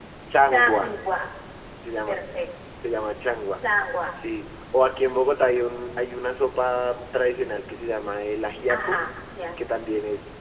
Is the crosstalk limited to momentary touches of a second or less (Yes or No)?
Yes